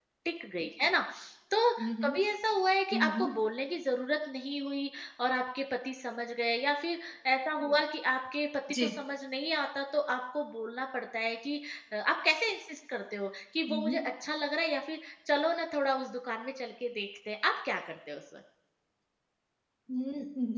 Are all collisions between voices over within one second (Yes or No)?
Yes